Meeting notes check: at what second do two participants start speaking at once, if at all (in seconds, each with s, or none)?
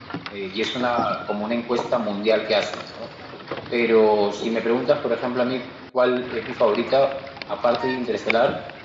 none